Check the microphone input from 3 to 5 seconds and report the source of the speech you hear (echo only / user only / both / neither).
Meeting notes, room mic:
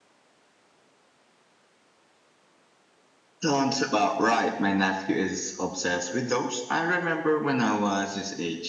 echo only